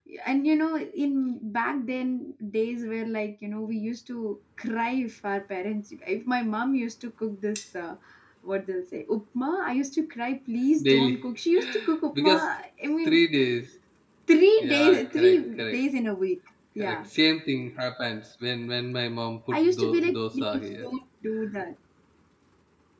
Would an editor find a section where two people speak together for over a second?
Yes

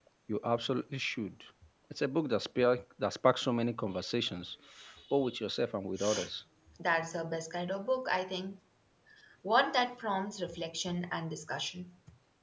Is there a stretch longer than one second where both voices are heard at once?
No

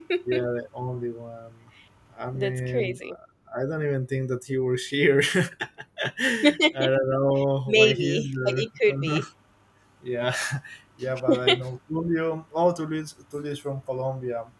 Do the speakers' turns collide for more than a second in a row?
Yes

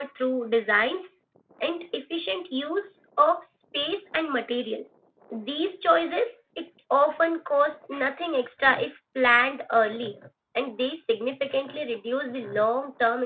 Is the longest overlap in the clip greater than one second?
No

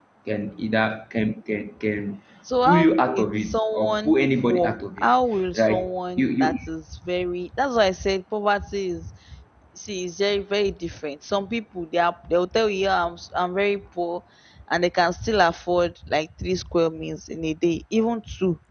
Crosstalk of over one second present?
Yes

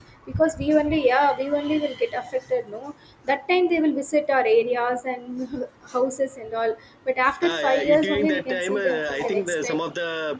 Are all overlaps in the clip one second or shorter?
No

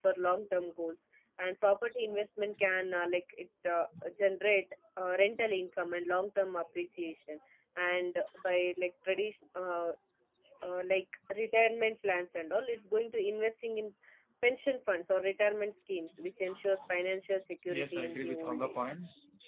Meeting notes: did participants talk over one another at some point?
Yes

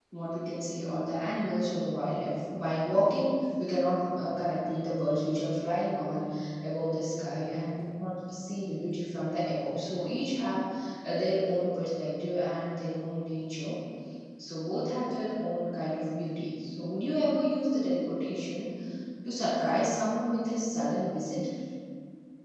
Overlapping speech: No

